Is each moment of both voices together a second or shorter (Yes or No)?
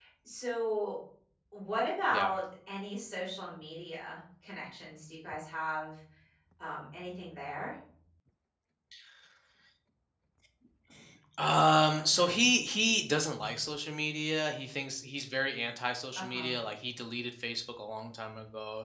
Yes